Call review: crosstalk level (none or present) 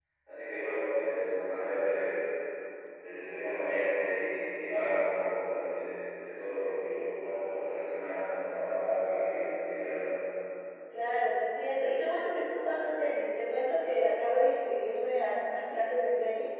none